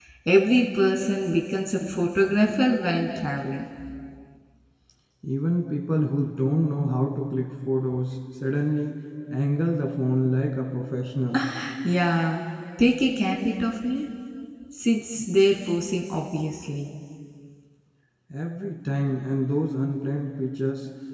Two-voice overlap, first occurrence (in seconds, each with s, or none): none